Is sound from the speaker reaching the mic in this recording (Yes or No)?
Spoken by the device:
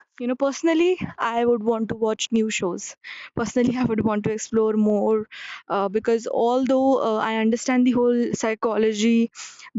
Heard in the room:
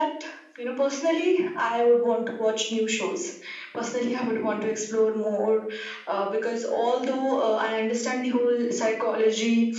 Yes